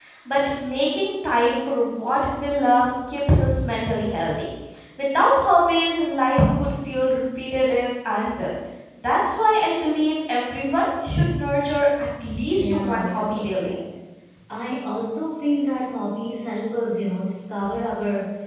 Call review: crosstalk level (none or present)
present